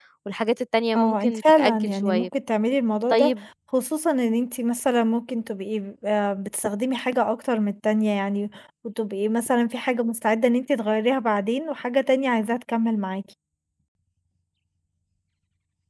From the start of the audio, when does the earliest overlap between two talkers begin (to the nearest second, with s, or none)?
1 s